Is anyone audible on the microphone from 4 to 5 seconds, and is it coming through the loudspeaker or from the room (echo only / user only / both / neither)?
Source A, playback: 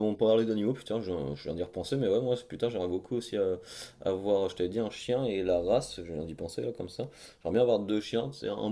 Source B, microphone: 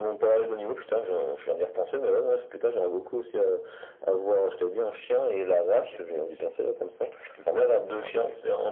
echo only